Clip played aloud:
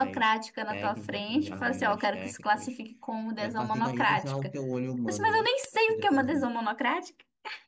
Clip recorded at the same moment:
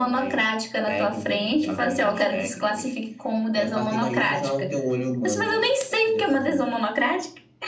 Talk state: echo only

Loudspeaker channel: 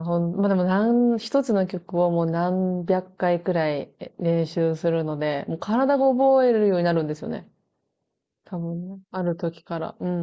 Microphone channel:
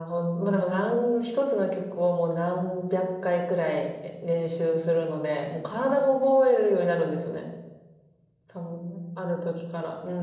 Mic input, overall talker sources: echo only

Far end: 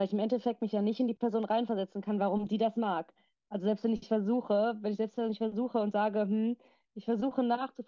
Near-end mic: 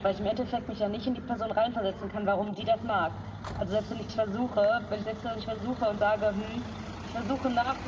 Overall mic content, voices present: echo only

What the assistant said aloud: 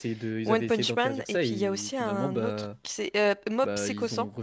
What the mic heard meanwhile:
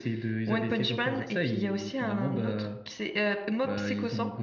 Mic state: echo only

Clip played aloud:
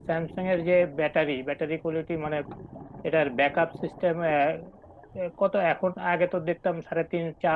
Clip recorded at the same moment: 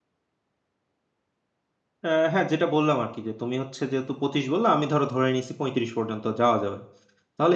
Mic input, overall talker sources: user only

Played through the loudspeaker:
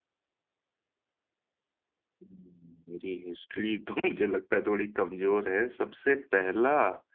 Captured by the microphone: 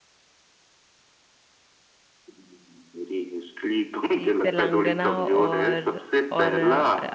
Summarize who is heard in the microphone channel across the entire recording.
both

